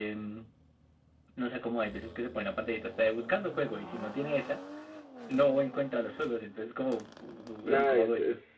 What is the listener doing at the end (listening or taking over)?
taking over